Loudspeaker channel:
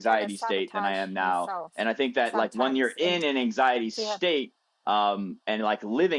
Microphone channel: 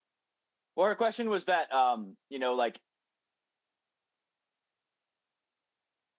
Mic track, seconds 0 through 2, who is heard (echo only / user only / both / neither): user only